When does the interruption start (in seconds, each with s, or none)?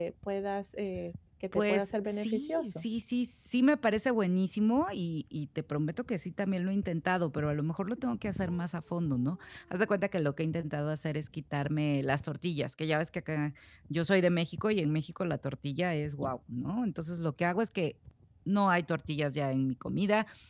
1.5 s